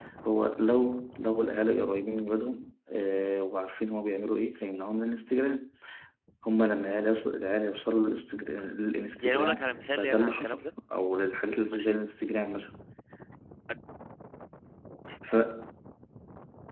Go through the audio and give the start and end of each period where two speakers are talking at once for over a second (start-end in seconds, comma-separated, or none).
9.2-10.6